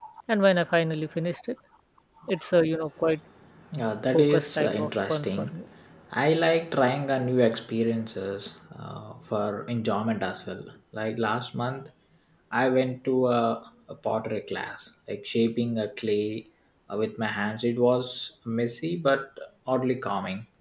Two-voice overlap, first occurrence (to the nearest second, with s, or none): 4 s